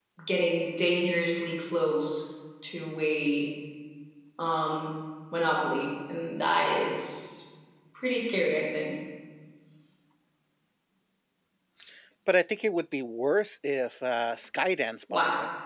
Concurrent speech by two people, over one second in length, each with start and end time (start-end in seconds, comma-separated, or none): none